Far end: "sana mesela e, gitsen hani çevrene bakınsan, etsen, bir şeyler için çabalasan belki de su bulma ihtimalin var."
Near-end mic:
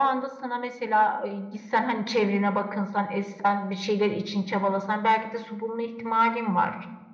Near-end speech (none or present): none